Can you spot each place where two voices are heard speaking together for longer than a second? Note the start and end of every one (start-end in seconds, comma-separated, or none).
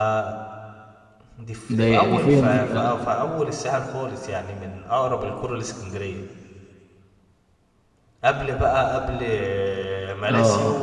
1.7-3.0